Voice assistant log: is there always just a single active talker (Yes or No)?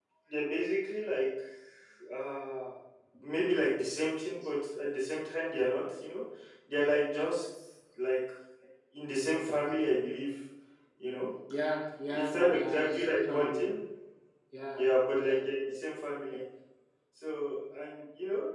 No